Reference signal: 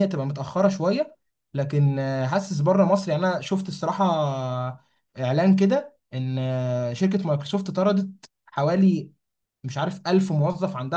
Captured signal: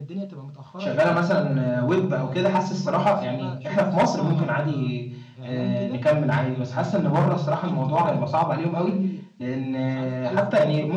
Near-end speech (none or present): present